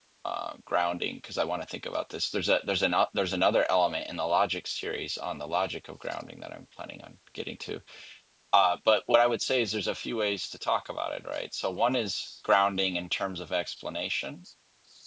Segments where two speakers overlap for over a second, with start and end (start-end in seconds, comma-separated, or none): none